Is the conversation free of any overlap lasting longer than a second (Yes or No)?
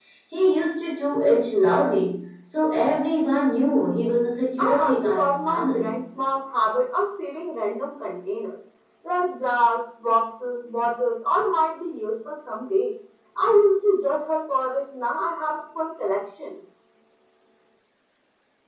No